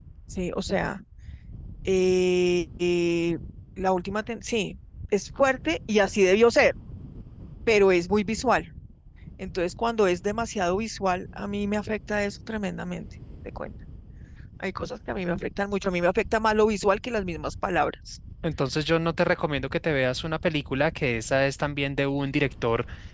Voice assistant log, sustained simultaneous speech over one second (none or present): none